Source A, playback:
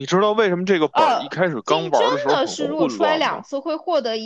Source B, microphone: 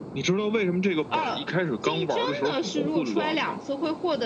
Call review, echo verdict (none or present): present